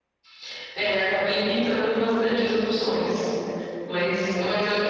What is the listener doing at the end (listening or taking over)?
listening